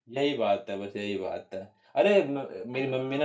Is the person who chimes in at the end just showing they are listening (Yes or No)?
Yes